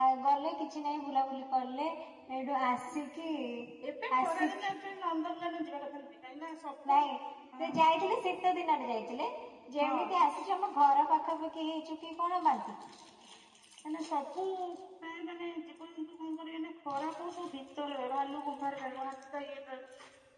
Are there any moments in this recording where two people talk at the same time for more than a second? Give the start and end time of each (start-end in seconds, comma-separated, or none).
none